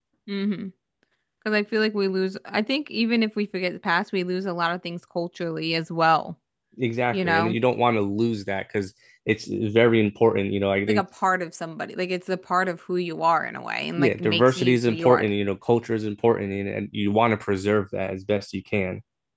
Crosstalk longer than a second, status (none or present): present